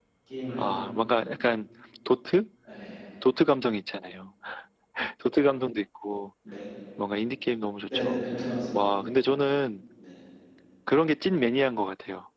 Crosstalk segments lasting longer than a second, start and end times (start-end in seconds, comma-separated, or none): none